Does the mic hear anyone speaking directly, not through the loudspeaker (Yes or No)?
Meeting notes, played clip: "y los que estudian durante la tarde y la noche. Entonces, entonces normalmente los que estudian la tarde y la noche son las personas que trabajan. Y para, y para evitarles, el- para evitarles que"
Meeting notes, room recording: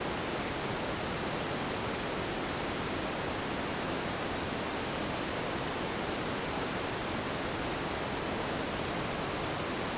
No